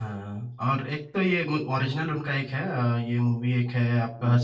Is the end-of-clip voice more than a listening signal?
No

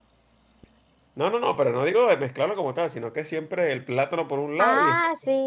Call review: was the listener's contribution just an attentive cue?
No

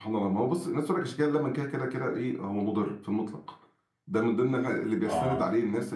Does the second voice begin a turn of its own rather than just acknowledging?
No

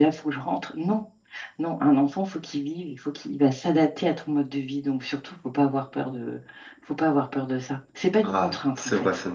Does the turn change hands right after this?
Yes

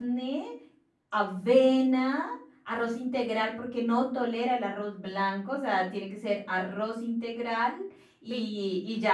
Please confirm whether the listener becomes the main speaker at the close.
No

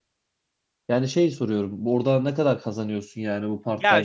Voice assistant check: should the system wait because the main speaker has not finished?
No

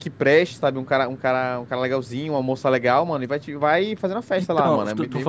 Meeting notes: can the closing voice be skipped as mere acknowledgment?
No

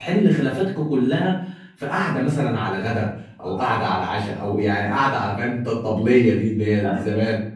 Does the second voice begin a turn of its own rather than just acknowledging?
Yes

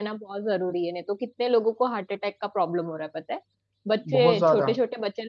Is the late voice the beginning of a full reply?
No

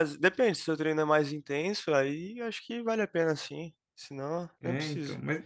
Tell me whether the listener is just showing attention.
No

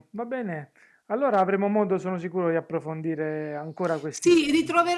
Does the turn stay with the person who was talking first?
No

